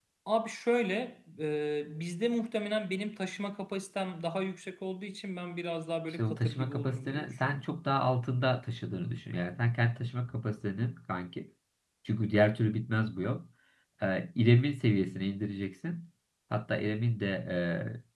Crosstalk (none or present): present